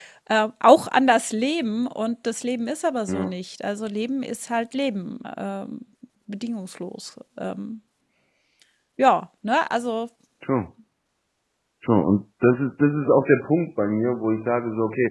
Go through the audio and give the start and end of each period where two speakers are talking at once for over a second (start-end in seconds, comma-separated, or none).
none